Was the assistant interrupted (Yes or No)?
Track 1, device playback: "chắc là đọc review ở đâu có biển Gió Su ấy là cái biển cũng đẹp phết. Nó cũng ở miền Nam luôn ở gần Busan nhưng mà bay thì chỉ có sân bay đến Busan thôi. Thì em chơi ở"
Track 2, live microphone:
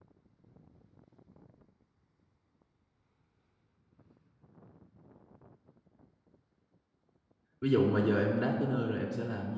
Yes